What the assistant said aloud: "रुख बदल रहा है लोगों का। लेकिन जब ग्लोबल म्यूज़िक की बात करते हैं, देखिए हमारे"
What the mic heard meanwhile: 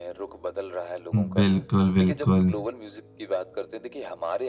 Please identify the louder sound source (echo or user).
user